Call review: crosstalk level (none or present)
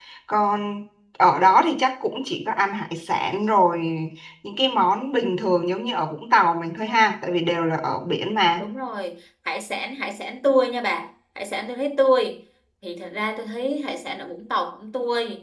none